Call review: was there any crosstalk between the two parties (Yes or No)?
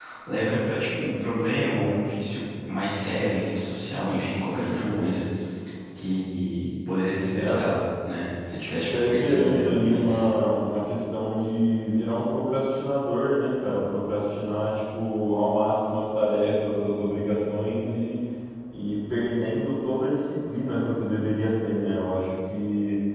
Yes